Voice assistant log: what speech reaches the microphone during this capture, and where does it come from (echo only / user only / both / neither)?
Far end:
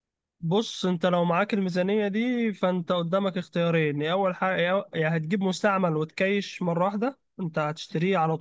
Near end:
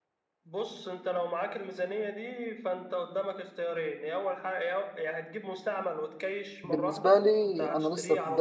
both